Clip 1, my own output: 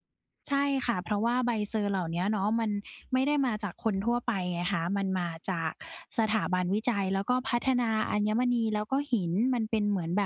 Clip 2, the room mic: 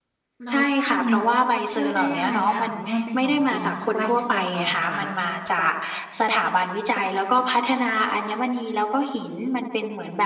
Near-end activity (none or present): present